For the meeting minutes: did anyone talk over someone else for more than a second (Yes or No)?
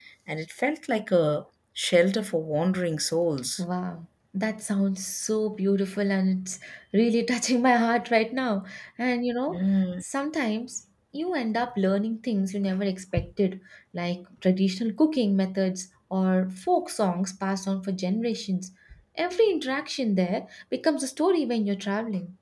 No